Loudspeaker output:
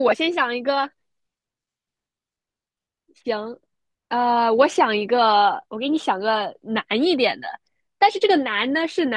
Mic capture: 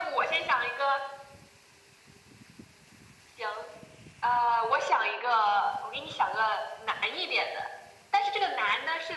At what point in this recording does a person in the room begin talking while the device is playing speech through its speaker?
none

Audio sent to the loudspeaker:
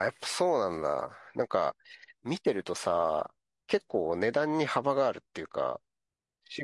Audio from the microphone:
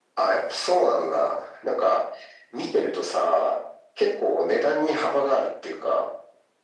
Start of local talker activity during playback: none

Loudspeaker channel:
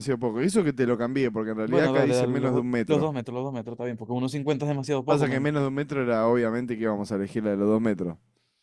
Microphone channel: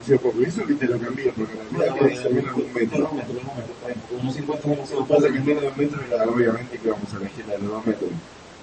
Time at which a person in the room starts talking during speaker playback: none

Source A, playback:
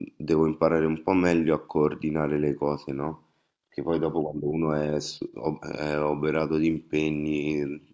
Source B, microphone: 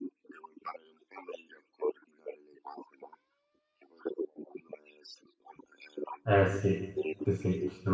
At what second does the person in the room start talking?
6.3 s

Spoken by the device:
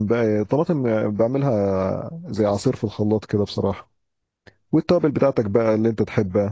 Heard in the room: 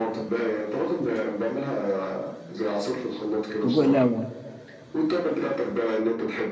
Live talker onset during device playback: 3.6 s

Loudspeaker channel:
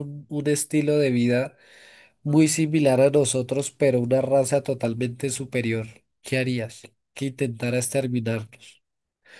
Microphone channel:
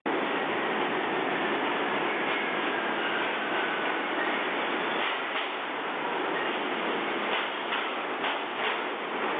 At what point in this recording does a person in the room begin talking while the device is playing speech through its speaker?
none

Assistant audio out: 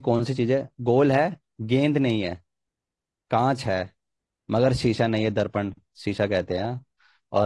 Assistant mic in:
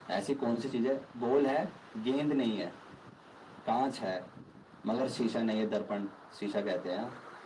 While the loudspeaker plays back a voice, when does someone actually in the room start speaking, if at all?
none

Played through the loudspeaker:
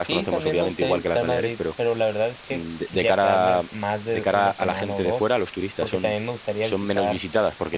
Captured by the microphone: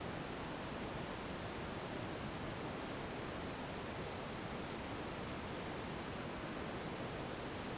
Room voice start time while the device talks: none

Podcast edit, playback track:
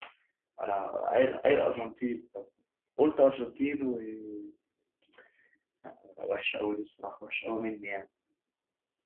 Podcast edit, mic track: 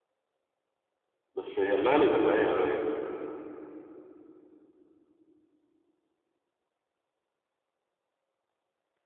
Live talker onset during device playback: 1.3 s

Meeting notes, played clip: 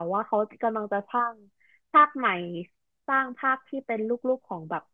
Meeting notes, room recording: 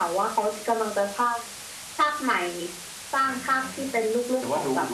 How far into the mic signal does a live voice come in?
3.2 s

